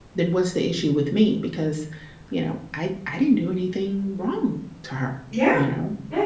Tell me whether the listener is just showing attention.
No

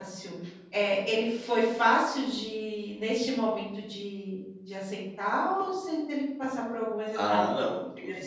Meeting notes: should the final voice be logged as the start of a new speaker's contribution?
Yes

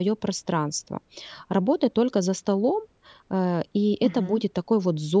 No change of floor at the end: Yes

